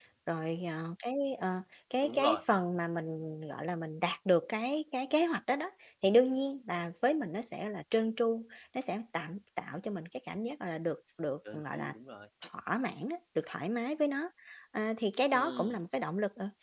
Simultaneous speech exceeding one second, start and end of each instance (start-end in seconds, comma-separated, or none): none